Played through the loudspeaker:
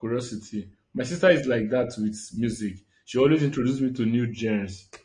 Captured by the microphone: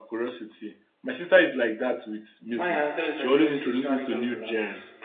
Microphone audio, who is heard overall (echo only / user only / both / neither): both